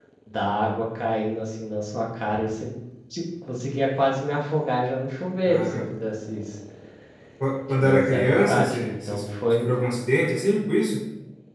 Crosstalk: present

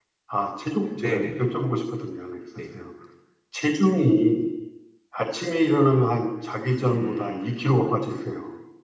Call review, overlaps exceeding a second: present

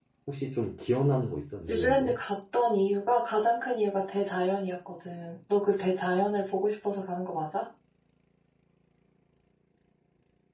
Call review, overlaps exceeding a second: none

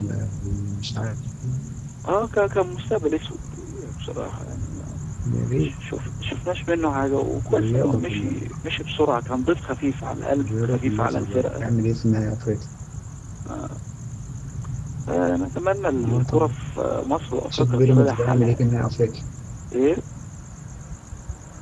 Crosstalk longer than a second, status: present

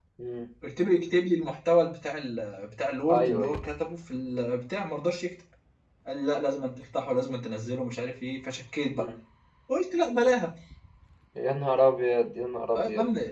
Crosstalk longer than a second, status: none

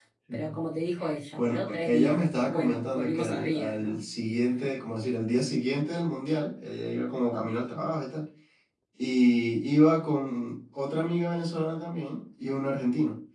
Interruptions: present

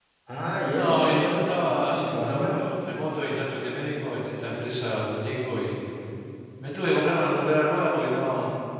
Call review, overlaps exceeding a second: present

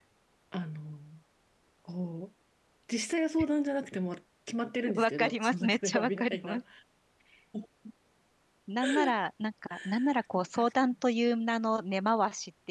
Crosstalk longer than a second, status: present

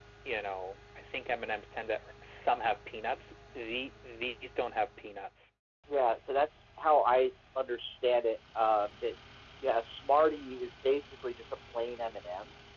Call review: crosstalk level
none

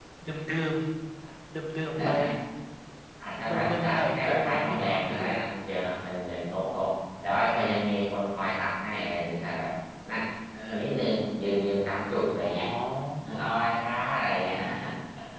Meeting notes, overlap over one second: present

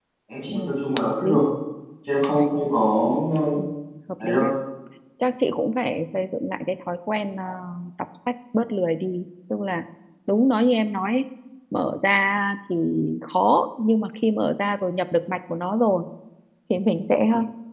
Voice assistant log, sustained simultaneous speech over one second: none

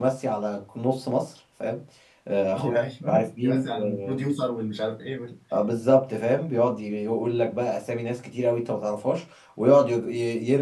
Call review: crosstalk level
present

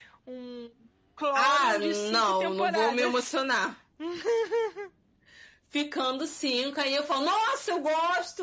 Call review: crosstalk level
present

